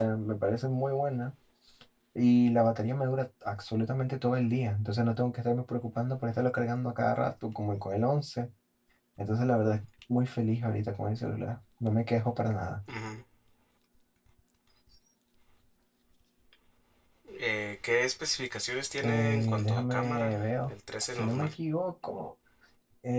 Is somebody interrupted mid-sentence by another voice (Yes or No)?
Yes